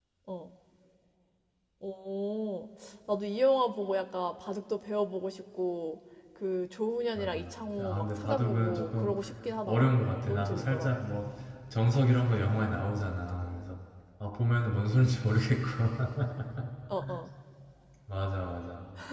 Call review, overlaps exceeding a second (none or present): present